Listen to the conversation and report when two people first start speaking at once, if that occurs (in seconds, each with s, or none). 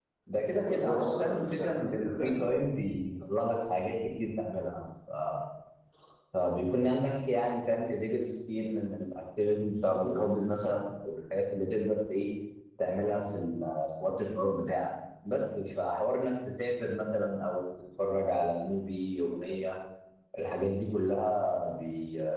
0.6 s